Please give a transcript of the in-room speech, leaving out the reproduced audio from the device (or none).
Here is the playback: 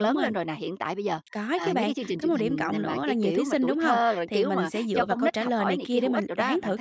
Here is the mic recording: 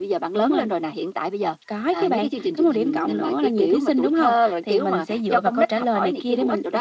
none